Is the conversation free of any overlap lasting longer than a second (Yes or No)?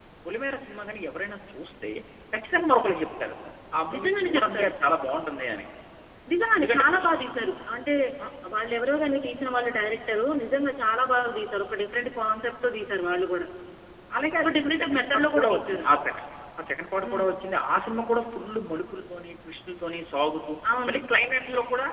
No